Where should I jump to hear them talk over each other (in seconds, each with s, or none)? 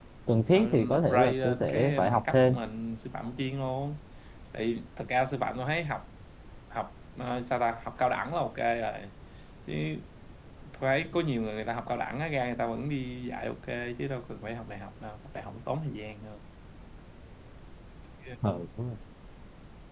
0.5 s